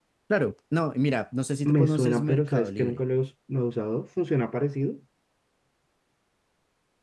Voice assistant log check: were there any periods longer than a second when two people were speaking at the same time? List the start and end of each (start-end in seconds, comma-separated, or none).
1.7-3.0